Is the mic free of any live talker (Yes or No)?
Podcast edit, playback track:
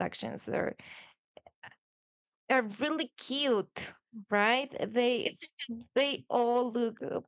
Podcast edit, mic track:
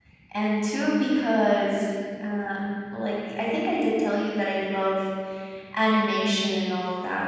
No